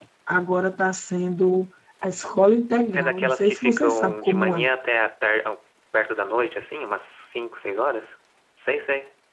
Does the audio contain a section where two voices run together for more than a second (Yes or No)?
Yes